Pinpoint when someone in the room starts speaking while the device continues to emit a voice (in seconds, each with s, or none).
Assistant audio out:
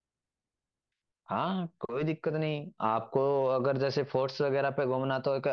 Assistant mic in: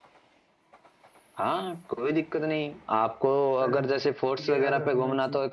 3.6 s